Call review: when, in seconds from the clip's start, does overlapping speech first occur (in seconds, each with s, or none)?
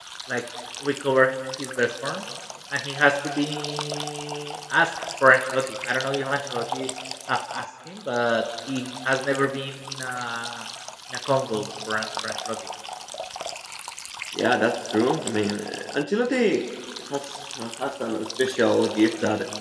none